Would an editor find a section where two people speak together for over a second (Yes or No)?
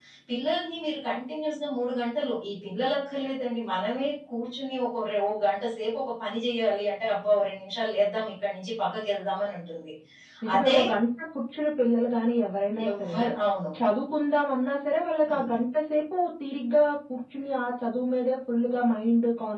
No